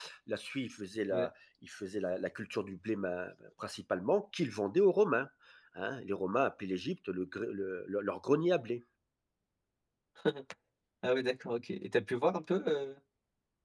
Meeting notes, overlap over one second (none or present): none